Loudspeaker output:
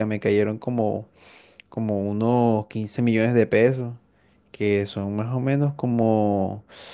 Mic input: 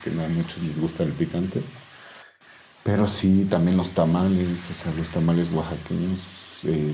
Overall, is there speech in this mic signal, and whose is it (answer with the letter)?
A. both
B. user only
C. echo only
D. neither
B